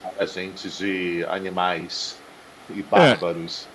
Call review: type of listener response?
taking over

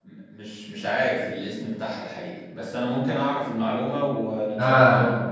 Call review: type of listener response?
taking over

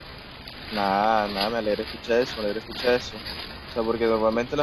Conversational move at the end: listening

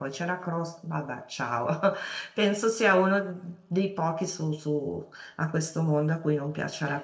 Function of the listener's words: listening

